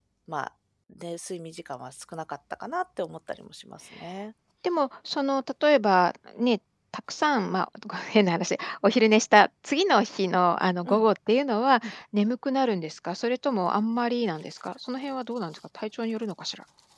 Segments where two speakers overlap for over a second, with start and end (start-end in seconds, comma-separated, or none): none